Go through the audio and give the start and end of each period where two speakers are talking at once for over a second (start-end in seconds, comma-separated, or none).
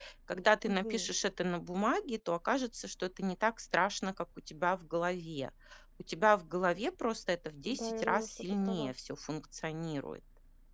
7.7-8.9